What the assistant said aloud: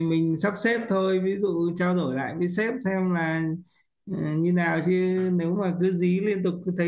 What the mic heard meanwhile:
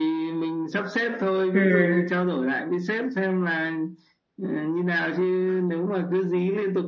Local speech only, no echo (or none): Ừ.